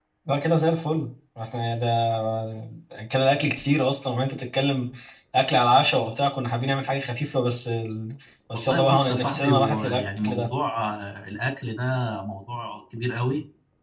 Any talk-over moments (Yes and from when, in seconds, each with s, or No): Yes, from 8.5 s